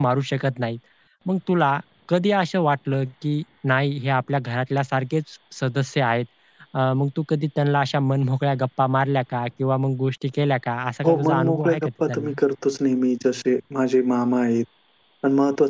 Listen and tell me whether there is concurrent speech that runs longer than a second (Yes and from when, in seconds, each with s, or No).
Yes, from 11.0 s